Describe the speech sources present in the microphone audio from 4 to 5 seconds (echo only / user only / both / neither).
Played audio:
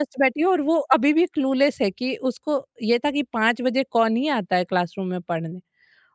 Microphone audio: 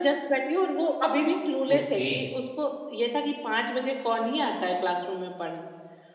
echo only